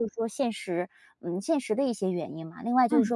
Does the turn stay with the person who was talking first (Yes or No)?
Yes